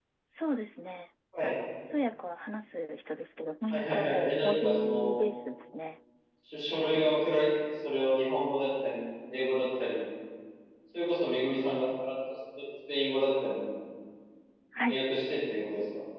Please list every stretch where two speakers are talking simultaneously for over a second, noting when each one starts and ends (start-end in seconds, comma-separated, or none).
3.7-5.1